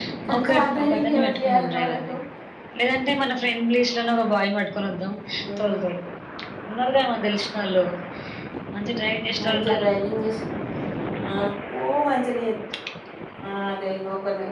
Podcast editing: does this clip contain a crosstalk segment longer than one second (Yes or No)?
Yes